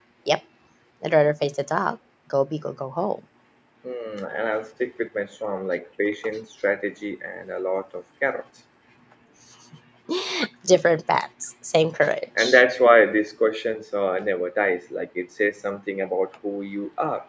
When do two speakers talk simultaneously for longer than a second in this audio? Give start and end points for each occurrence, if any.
none

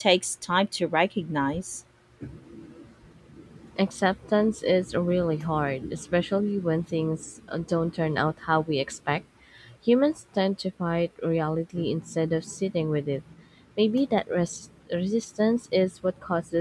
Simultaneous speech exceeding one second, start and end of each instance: none

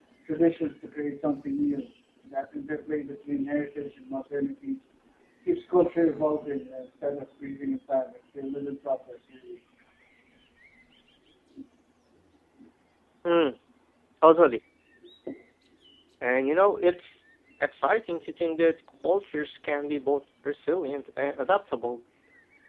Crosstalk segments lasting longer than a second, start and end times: none

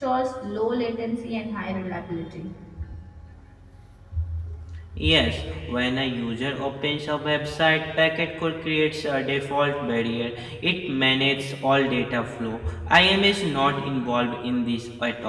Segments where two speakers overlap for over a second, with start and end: none

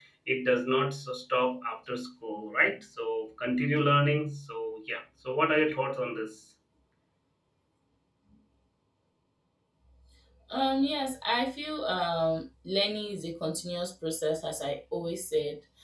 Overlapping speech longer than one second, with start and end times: none

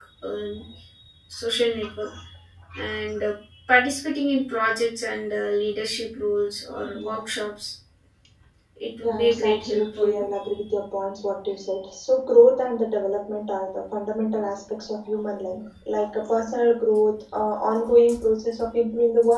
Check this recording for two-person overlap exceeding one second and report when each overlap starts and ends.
9.0-10.2

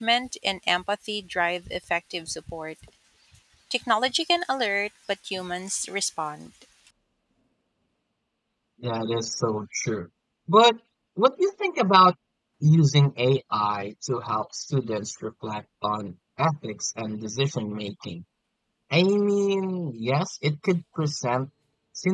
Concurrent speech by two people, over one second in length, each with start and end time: none

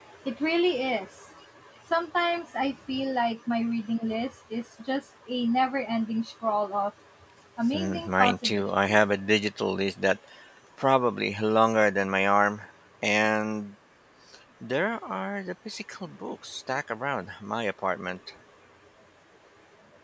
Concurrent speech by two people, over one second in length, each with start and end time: 7.7-9.0

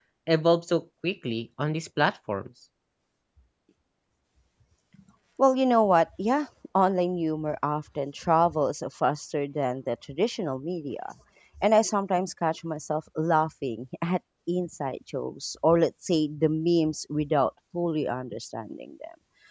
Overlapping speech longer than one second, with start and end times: none

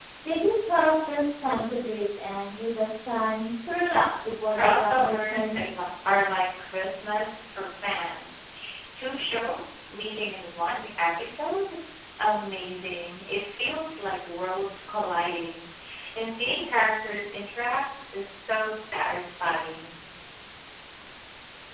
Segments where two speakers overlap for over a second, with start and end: 4.4-5.8

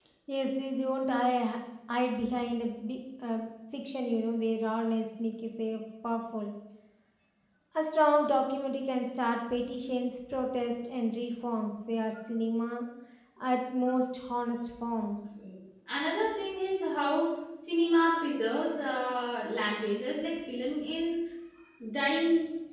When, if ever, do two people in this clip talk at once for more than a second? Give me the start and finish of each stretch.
none

